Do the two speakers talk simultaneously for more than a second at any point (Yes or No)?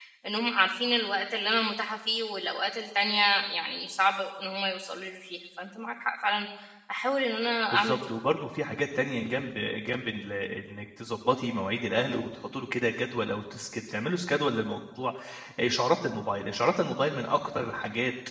No